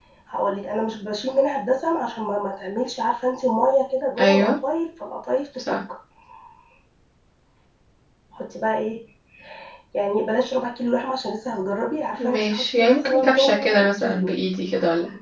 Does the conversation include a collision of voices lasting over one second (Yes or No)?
Yes